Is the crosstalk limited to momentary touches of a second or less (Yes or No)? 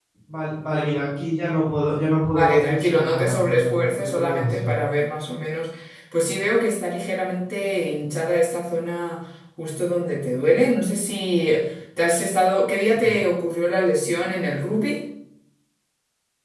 No